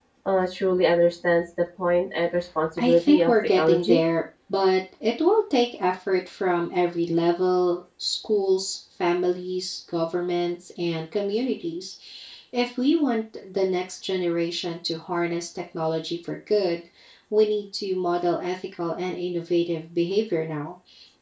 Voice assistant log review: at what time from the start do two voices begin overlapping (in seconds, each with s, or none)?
2.8 s